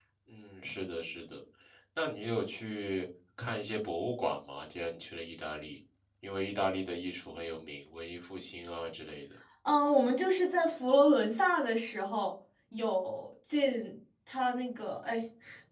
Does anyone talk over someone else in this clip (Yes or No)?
No